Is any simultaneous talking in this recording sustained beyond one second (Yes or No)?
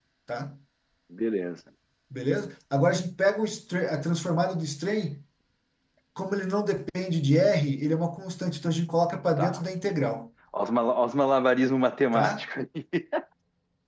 No